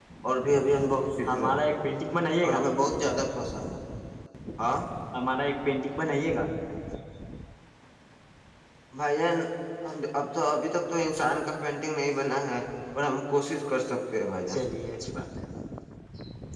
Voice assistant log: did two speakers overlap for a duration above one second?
No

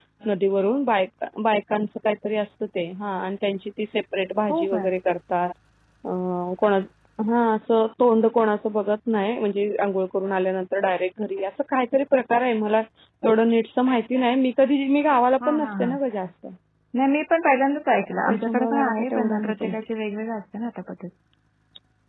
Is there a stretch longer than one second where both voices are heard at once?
Yes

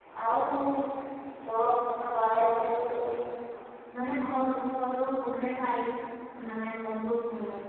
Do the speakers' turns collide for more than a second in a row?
No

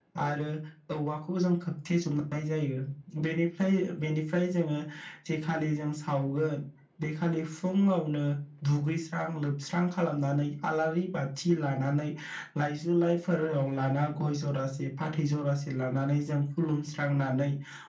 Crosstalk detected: No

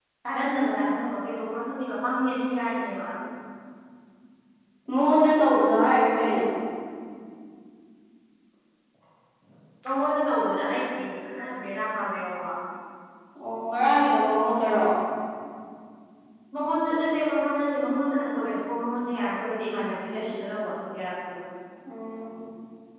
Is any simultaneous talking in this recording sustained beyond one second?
No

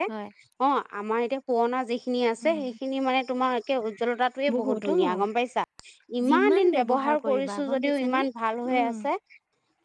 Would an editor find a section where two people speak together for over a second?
Yes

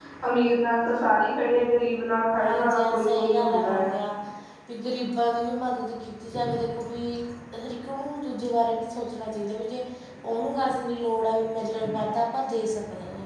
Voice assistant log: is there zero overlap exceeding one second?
No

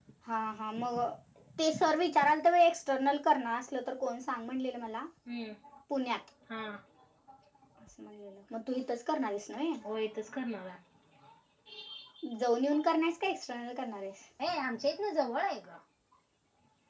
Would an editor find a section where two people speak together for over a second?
No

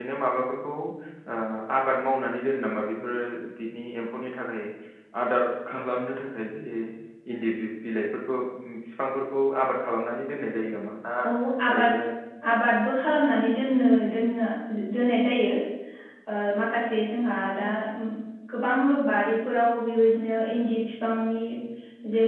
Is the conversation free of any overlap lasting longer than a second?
Yes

